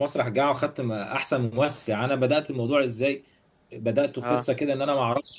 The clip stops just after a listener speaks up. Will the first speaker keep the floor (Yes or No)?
Yes